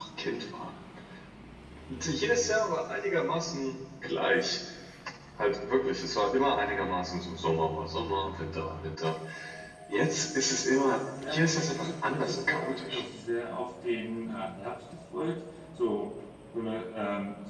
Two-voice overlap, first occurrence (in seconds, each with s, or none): 11.2 s